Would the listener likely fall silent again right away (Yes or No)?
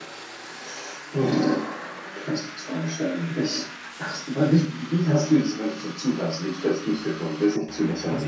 No